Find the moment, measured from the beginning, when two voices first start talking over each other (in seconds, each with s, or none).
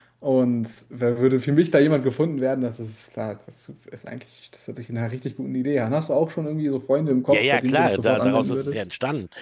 7.3 s